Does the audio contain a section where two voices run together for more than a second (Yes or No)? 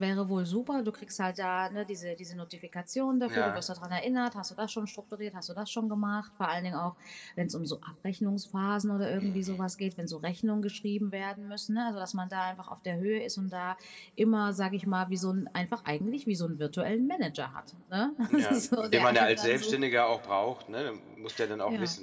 Yes